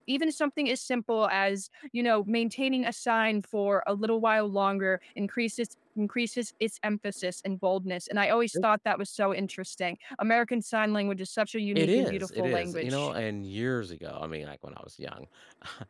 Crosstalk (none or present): present